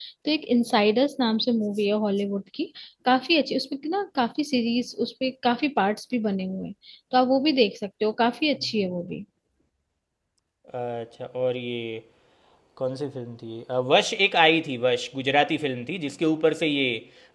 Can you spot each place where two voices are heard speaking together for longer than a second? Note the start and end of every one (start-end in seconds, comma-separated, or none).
none